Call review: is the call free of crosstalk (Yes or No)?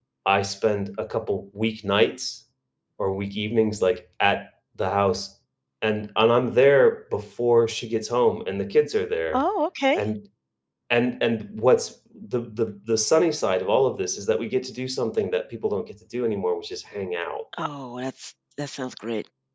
Yes